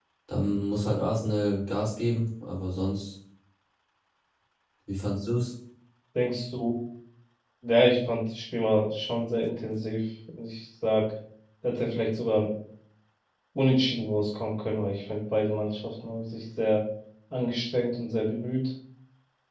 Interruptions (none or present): none